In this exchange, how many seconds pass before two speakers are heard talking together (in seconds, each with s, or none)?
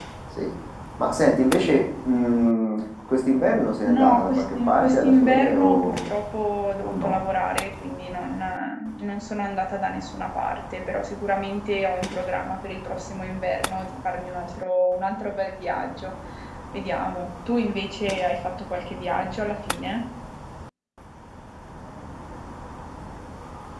3.9 s